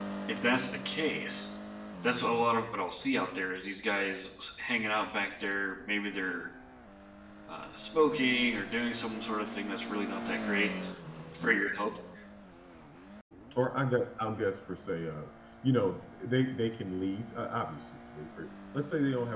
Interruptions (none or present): none